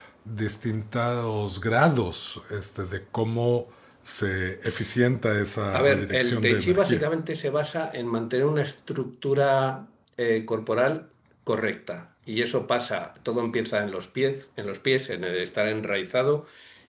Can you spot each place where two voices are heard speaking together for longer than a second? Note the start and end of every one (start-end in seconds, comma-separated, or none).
5.7-7.1